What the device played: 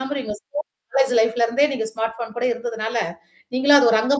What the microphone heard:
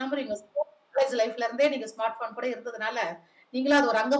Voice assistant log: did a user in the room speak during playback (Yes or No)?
No